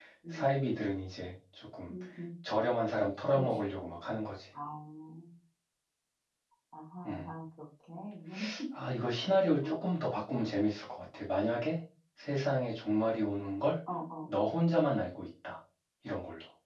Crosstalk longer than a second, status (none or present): none